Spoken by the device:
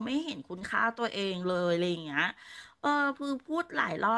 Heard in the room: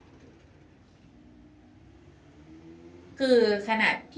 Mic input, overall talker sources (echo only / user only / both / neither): user only